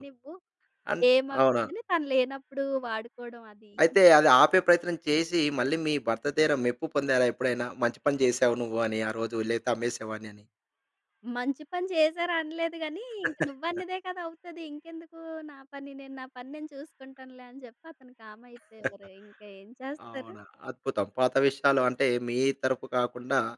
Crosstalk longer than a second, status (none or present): none